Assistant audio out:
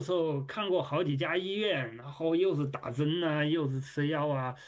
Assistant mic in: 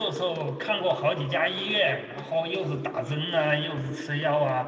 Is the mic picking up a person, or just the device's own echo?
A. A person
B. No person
B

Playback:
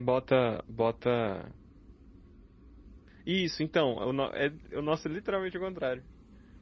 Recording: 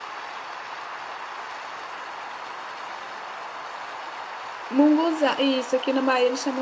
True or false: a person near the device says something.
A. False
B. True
B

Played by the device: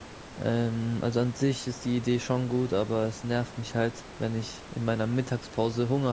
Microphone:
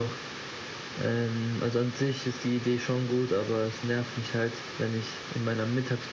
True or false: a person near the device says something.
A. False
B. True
A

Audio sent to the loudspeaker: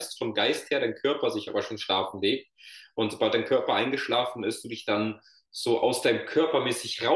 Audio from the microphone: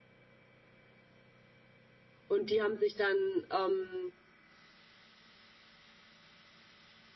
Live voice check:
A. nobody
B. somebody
B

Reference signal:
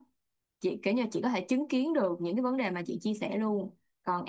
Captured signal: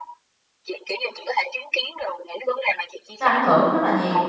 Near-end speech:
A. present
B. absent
A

